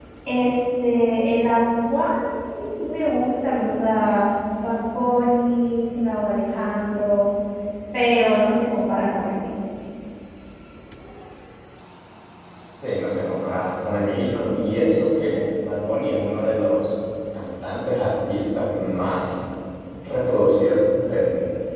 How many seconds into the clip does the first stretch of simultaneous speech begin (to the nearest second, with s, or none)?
none